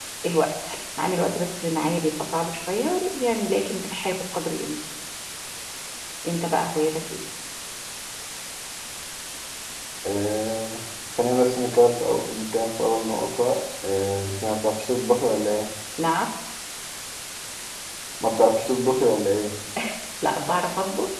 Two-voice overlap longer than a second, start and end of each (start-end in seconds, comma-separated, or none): none